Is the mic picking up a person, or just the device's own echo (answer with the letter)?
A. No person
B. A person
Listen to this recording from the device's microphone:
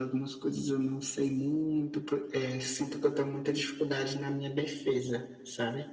A